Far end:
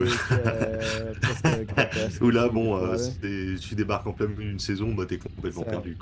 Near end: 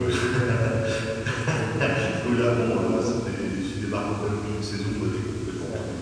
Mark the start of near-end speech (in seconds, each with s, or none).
none